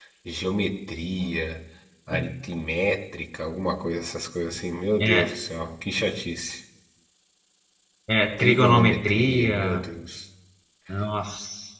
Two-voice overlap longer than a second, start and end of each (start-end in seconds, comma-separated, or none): 8.4-9.9